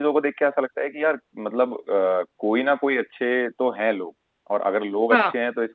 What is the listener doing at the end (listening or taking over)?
listening